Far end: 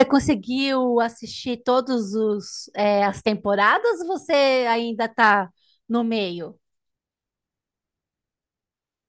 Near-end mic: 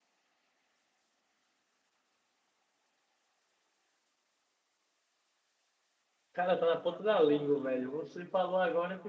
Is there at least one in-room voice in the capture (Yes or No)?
Yes